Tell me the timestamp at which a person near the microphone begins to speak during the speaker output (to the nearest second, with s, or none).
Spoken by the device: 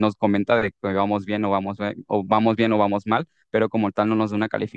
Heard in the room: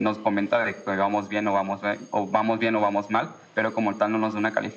none